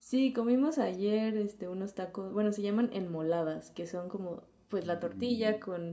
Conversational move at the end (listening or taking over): listening